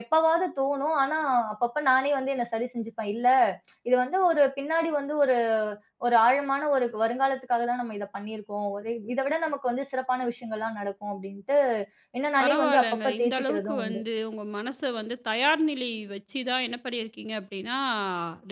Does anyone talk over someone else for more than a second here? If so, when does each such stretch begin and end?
12.4-14.0

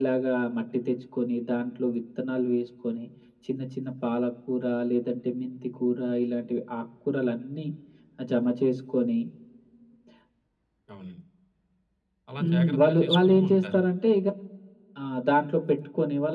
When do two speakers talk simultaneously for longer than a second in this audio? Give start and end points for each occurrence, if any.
12.4-13.8

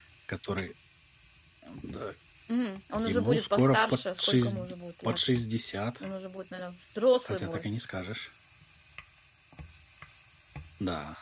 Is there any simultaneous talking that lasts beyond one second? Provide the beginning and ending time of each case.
3.0-4.6

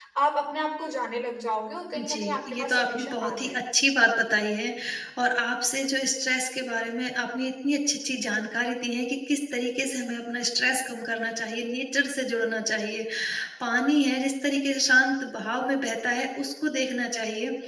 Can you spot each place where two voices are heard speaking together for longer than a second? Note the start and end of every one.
2.0-3.5

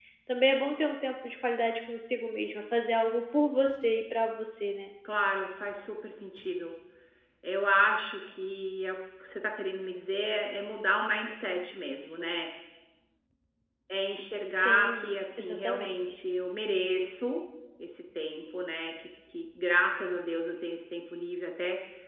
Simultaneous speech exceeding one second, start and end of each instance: 14.6-16.0

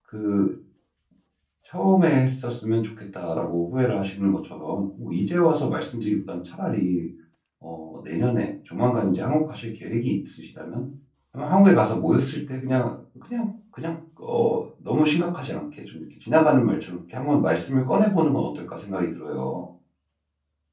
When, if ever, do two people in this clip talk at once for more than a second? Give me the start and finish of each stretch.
none

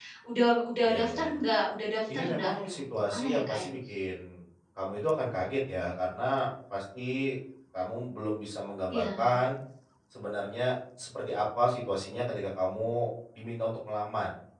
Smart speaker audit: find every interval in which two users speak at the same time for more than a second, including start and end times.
2.1-3.6

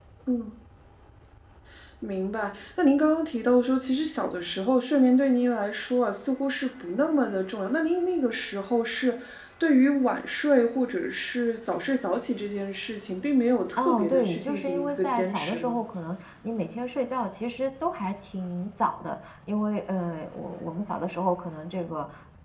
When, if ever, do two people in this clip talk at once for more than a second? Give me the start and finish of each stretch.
13.8-15.8

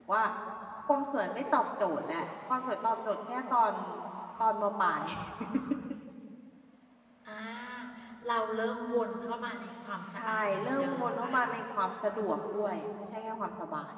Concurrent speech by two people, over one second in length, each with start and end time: 10.2-11.5

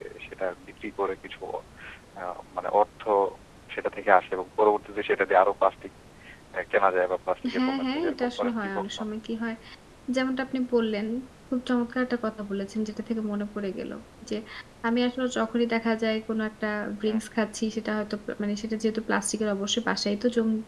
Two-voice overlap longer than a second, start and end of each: 7.5-8.8

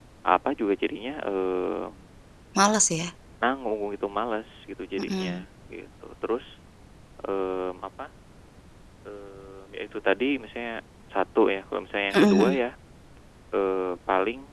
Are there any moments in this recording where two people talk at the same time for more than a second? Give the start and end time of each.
none

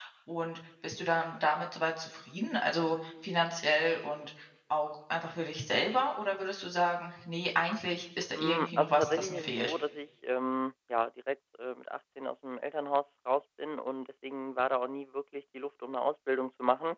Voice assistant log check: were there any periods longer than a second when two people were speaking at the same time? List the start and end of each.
8.3-9.7

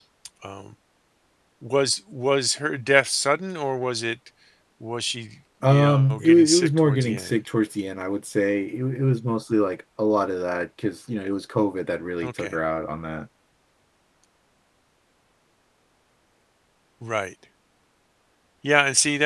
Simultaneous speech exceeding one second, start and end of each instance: 5.6-7.4

